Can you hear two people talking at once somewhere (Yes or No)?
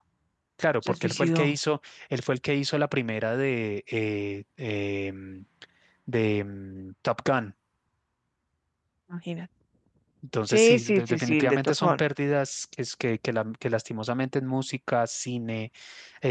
Yes